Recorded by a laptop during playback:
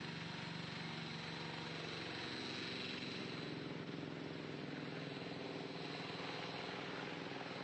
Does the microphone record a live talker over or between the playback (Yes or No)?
No